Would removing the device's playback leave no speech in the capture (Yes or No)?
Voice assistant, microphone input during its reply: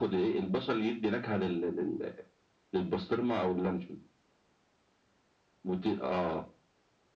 Yes